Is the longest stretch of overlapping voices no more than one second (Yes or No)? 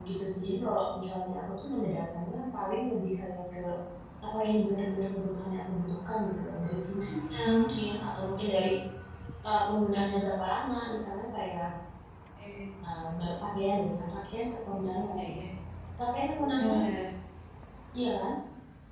Yes